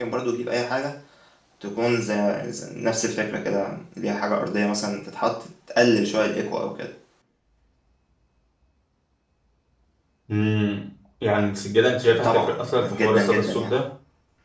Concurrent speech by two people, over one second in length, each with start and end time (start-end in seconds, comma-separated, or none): 12.1-13.7